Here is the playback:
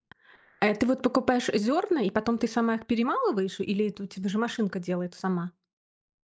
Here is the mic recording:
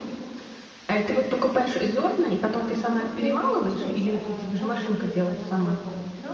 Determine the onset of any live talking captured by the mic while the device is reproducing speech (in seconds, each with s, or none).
2.5 s